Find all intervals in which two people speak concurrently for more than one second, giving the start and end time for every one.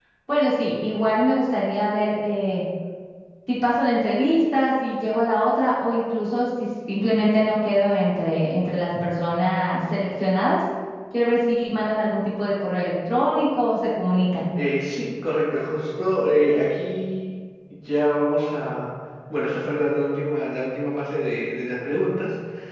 none

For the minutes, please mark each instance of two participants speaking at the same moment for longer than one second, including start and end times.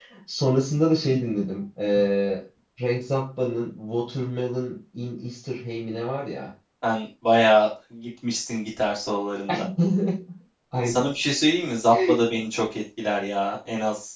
none

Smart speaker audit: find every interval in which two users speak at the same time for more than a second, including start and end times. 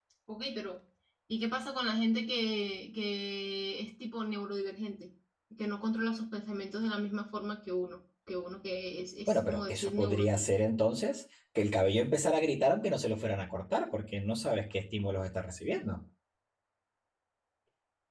9.3-10.6

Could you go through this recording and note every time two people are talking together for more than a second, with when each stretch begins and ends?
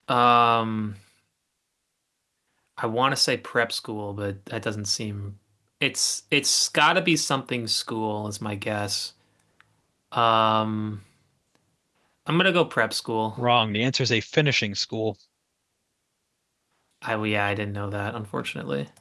none

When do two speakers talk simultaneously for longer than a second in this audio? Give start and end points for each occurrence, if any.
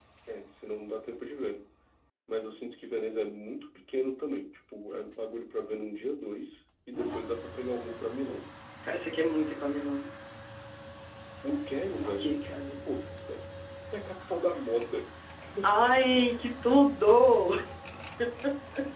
none

